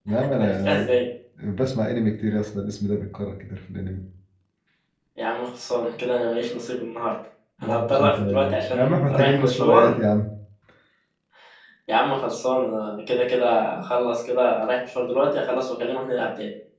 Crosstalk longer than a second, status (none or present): present